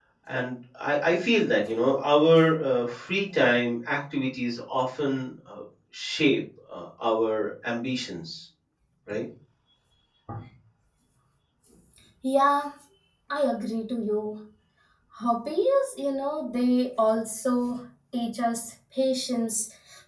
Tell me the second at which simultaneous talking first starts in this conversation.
none

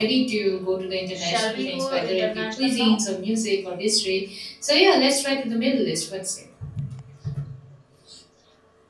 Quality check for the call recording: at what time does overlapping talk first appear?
1.1 s

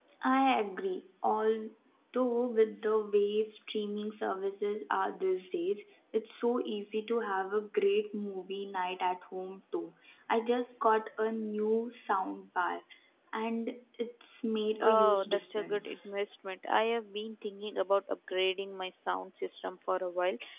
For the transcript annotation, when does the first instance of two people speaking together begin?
14.8 s

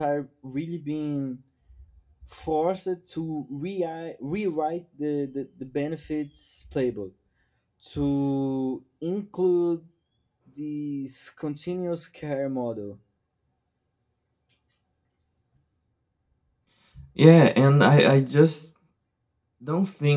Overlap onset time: none

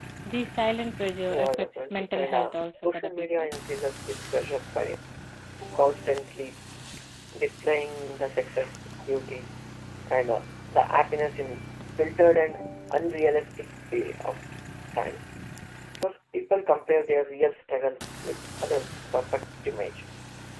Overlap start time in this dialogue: 1.3 s

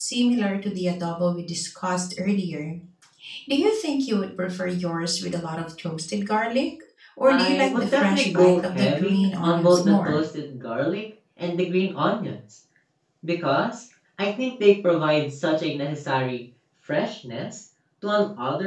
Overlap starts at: 7.3 s

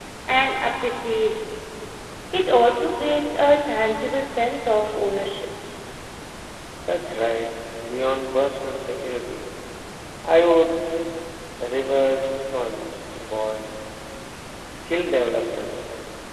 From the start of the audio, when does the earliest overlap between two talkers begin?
none

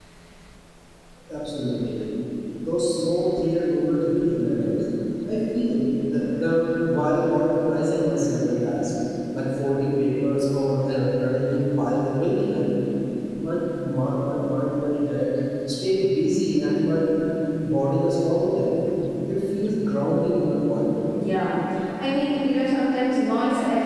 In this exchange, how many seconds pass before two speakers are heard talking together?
none

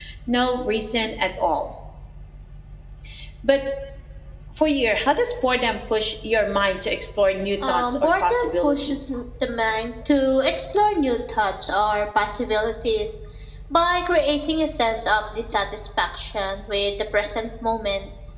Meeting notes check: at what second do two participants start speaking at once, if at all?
7.6 s

